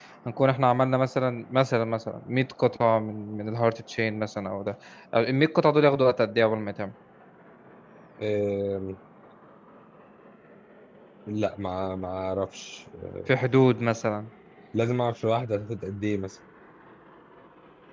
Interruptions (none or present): none